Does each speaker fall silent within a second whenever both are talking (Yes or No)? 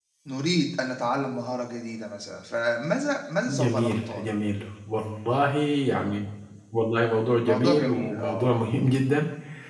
No